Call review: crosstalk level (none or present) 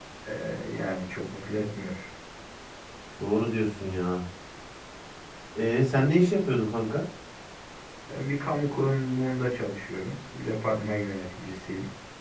none